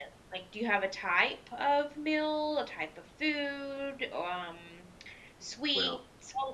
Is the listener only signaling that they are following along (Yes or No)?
Yes